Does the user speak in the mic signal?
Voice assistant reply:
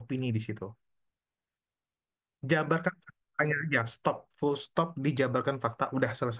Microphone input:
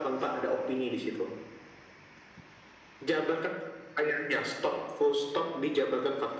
No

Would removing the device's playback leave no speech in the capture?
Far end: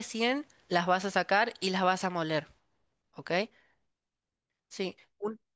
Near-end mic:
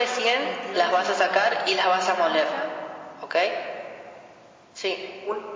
No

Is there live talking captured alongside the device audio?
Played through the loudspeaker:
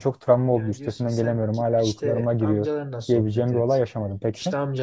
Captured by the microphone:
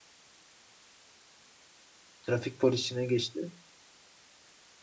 Yes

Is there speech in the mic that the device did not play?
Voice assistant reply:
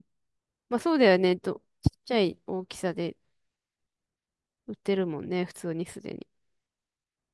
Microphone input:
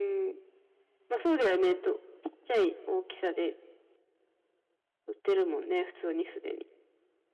No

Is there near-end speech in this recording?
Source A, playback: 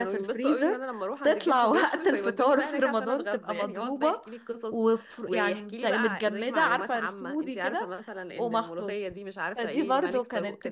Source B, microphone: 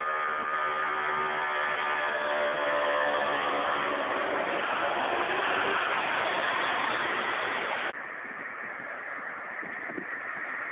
No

